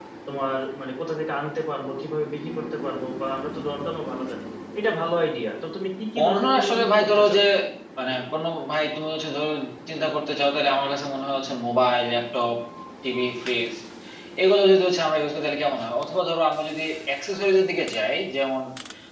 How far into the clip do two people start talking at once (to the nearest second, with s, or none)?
6 s